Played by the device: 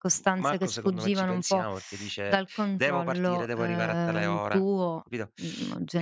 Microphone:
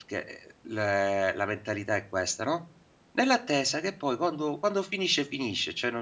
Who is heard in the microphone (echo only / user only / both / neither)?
user only